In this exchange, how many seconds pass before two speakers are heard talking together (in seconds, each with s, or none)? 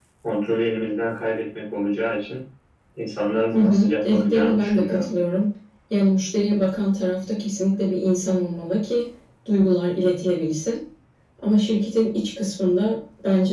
3.5 s